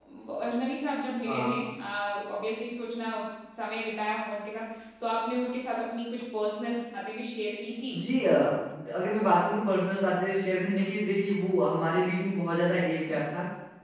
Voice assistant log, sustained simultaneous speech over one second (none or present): none